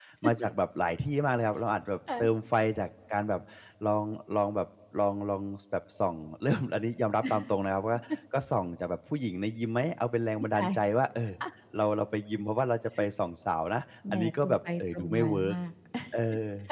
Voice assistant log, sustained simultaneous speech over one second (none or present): present